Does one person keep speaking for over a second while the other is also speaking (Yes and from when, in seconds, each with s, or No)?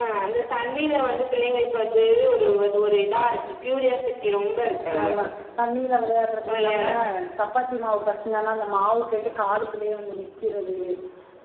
No